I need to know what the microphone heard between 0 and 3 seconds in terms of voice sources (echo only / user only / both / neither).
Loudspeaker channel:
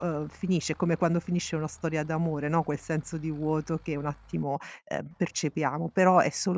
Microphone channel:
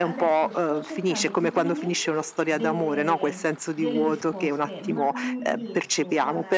both